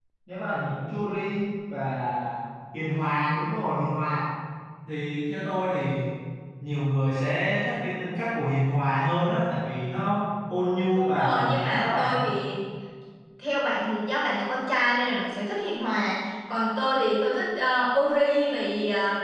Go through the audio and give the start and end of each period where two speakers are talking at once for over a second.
10.9-12.2

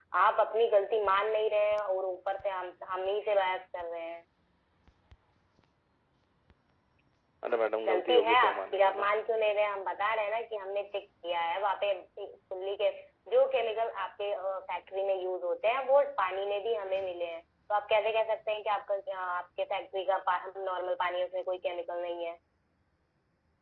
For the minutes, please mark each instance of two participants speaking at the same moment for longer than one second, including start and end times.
7.8-9.1

